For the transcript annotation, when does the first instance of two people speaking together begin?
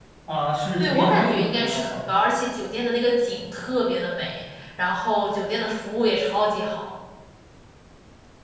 0.8 s

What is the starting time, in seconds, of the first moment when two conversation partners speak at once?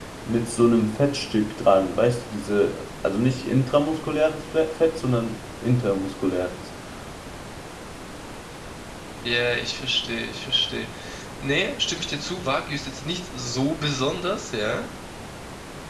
none

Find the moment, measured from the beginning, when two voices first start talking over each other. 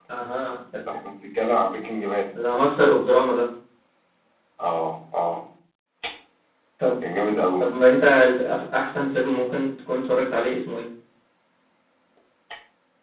none

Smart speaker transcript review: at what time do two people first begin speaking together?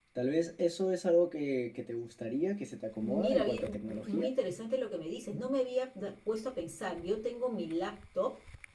3.0 s

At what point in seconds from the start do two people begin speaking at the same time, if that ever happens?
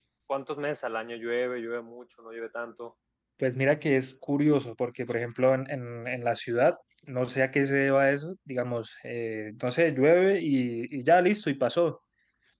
none

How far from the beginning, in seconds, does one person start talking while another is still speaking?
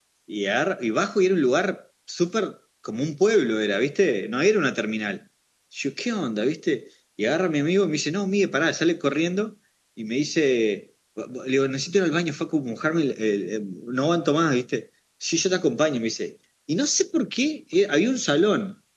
none

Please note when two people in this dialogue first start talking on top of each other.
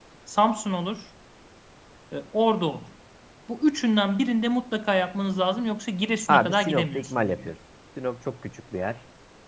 6.3 s

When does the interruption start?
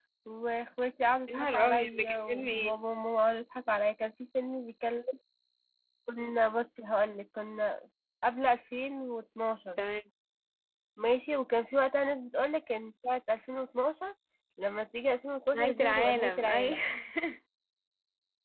1.3 s

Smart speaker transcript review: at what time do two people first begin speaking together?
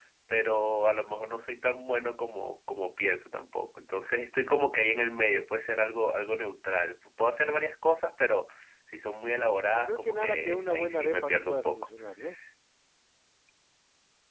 9.7 s

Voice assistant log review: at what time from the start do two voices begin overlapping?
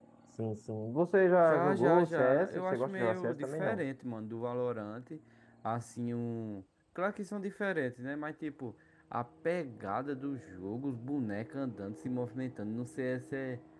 1.5 s

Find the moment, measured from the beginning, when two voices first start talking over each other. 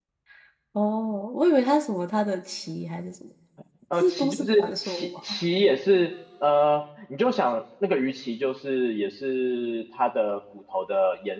3.9 s

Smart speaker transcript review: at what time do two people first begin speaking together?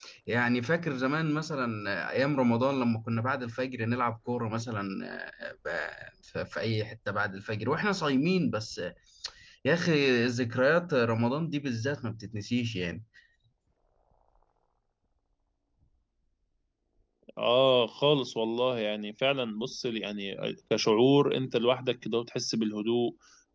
none

